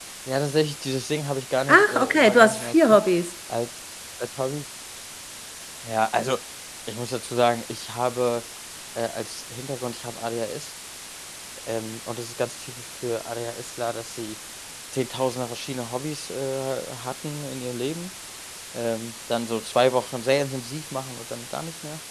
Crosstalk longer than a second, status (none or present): present